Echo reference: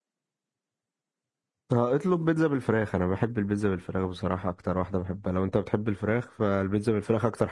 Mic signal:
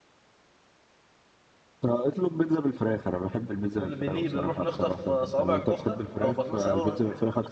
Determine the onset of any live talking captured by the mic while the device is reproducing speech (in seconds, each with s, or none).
3.8 s